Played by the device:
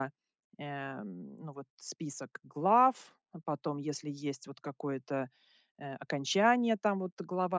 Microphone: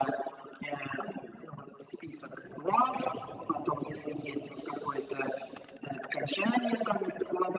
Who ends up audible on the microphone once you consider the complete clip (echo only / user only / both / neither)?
echo only